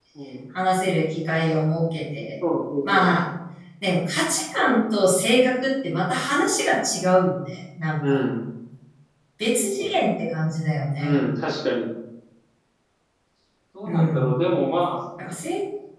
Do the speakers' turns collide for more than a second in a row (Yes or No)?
No